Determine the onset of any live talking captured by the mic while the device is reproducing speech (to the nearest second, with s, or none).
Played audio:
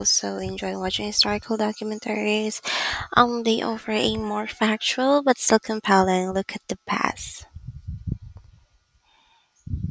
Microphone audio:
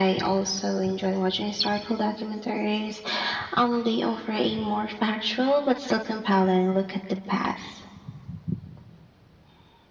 none